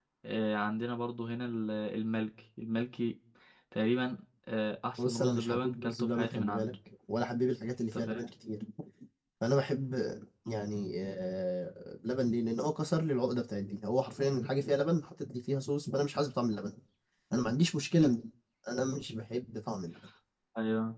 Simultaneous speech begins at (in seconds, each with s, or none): 5.0 s